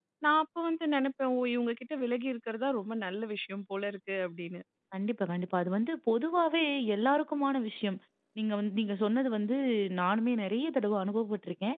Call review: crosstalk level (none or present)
none